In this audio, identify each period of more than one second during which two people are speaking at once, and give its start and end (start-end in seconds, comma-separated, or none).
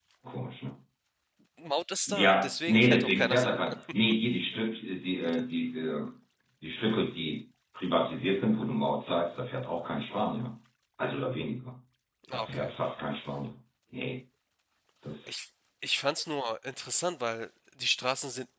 2.1-3.6